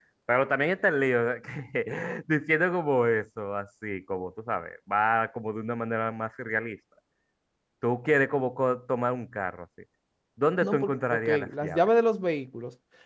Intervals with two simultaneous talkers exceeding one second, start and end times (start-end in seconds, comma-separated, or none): 10.6-11.9